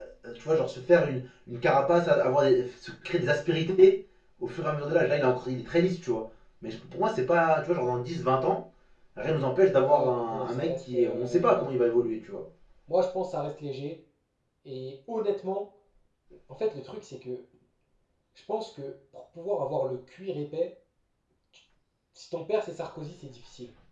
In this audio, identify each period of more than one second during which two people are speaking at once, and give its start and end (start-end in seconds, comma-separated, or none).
9.7-11.7